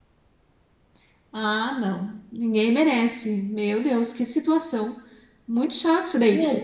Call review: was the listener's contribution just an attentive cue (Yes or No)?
Yes